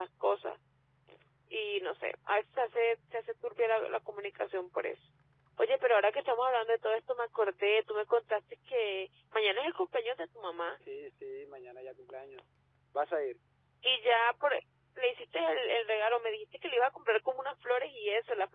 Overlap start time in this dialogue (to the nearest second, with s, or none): none